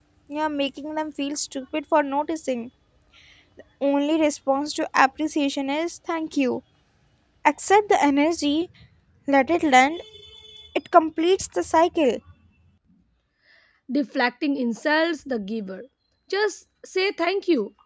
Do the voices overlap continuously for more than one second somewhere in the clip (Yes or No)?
No